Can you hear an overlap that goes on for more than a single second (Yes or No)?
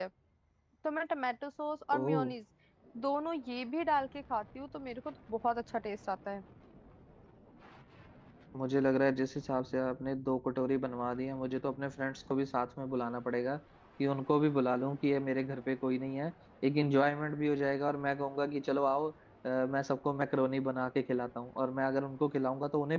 No